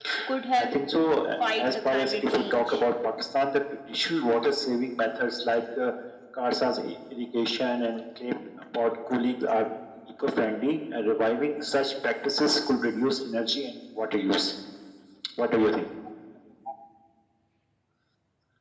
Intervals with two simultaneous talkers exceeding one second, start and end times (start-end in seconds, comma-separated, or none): 1.6-2.8